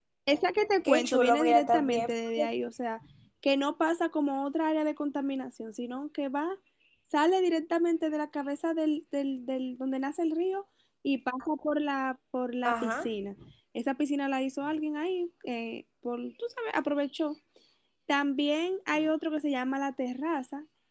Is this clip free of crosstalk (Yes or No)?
No